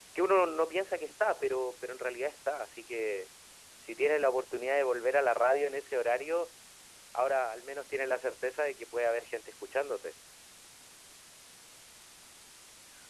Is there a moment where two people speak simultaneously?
No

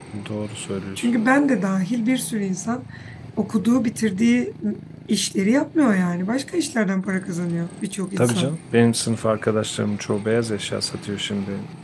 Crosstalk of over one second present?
No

